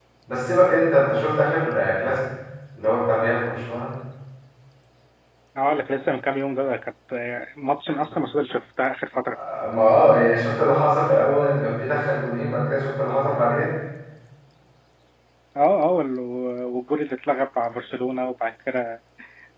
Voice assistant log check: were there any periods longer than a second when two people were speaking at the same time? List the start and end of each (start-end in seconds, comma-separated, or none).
none